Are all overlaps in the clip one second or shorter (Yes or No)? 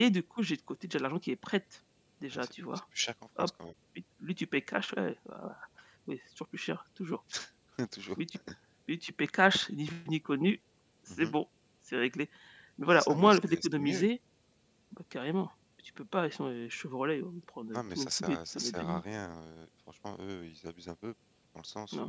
No